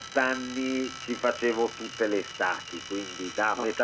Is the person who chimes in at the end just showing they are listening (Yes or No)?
Yes